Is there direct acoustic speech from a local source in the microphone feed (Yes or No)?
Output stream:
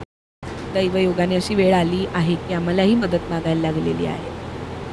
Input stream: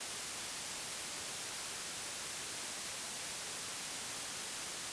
No